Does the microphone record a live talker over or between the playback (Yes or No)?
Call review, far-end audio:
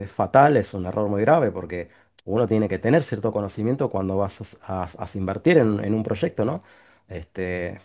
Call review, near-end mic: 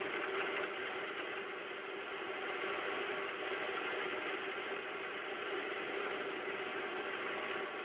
No